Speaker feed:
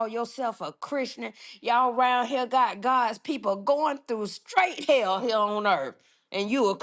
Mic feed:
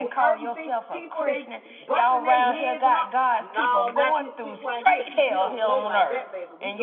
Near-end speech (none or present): present